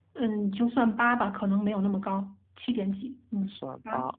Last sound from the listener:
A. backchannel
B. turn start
B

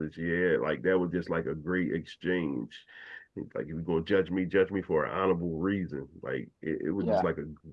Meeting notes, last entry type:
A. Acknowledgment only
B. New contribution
A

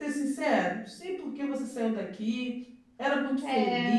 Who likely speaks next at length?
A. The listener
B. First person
B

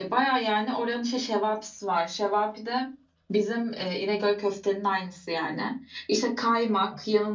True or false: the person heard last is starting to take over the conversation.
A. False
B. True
A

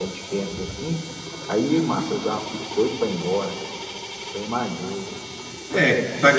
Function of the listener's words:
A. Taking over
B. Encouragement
A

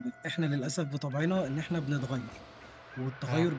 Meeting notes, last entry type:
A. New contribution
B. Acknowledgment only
B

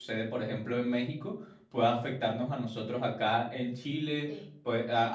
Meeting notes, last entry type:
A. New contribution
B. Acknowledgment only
B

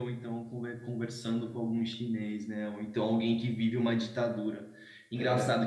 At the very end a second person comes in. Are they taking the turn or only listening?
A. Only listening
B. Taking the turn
A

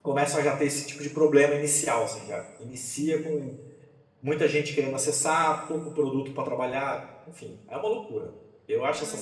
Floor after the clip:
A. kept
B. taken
B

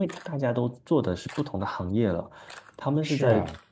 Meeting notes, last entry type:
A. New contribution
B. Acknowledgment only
B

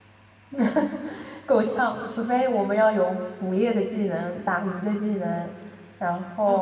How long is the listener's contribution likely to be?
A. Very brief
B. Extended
B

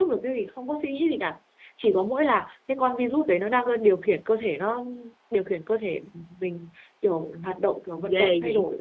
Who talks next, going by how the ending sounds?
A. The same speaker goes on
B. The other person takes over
B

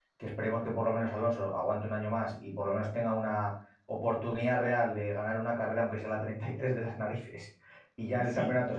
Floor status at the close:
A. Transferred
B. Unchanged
B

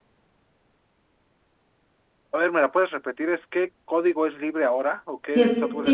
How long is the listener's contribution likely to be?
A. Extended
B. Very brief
A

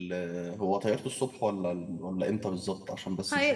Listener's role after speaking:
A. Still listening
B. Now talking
B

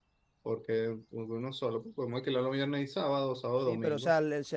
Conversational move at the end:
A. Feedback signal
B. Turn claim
B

